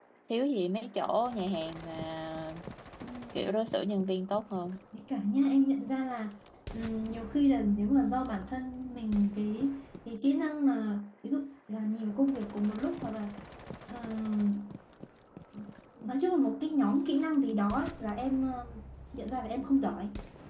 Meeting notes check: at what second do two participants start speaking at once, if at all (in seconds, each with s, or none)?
none